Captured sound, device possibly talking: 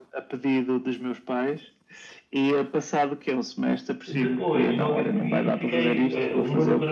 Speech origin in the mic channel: both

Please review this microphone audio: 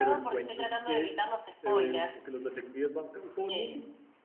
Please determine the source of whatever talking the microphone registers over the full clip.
both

